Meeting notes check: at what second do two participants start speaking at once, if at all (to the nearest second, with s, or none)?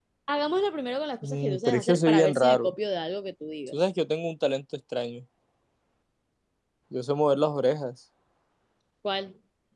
1 s